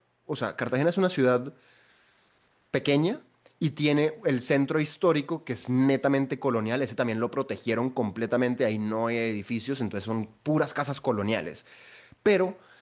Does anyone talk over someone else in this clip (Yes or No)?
No